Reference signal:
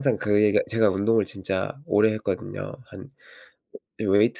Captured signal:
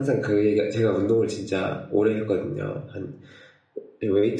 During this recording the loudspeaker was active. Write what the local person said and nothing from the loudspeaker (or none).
none